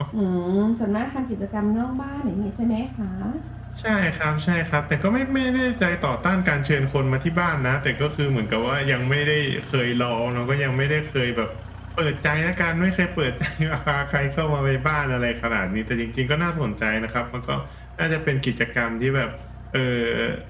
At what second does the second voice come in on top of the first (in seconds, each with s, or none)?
none